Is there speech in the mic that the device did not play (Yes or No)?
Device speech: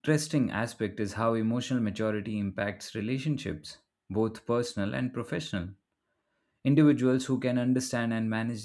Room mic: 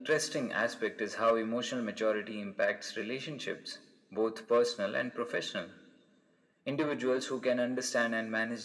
No